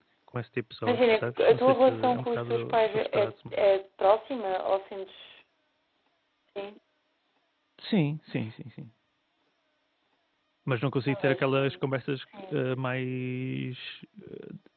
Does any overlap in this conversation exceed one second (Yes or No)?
Yes